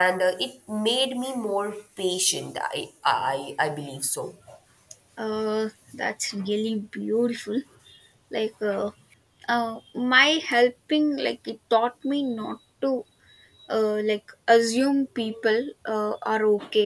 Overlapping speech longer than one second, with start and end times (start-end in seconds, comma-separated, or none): none